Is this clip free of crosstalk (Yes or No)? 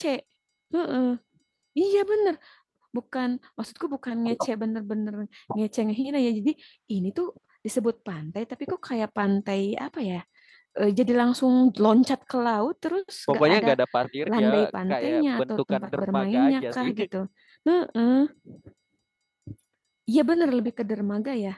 No